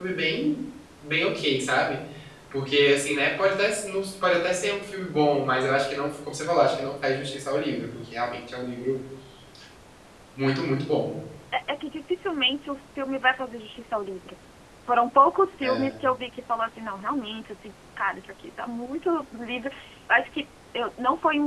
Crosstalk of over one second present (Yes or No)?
No